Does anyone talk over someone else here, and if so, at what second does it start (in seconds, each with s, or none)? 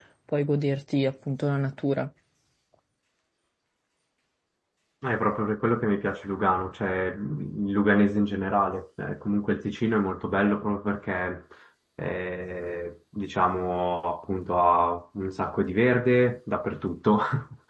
none